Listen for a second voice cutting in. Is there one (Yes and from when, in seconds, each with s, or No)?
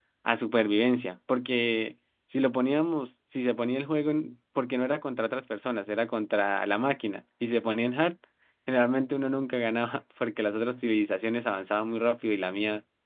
No